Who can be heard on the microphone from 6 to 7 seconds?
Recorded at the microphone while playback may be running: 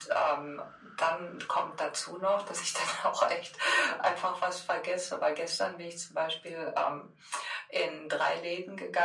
echo only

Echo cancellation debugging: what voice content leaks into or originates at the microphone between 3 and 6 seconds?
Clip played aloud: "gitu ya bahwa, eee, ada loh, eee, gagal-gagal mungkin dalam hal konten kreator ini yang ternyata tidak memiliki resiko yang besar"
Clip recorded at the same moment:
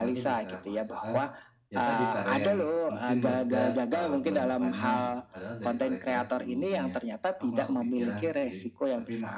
both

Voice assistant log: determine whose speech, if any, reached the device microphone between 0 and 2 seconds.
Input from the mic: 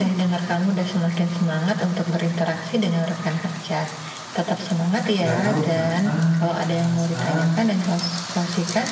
echo only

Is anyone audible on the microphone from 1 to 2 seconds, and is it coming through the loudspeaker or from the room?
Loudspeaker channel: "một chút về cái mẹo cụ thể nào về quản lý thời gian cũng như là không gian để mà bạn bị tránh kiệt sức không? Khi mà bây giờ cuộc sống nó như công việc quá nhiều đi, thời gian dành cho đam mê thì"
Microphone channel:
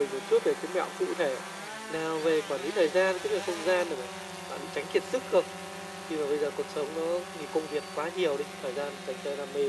echo only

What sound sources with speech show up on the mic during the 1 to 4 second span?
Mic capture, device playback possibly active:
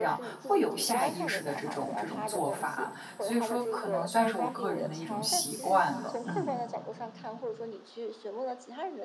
both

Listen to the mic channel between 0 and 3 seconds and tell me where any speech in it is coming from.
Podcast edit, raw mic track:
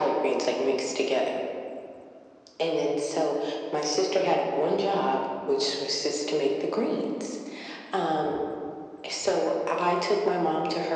echo only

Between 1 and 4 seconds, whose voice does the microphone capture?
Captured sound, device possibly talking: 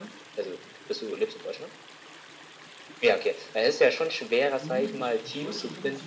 echo only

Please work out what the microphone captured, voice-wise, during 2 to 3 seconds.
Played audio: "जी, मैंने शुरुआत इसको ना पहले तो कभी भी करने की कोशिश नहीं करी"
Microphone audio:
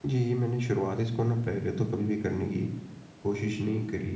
echo only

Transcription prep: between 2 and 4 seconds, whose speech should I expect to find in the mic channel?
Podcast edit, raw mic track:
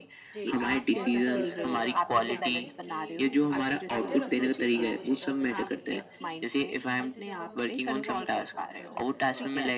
both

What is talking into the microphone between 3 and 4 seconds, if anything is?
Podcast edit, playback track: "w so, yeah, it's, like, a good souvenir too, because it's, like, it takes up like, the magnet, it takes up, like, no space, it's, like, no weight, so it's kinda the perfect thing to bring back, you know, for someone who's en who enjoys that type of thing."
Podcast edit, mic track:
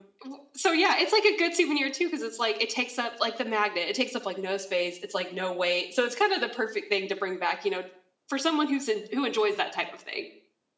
echo only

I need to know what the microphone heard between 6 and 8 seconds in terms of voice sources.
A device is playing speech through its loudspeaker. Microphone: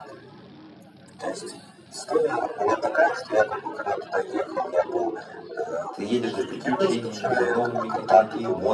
both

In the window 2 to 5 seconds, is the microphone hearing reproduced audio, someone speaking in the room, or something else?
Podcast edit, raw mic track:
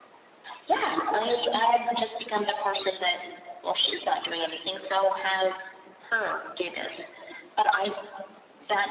echo only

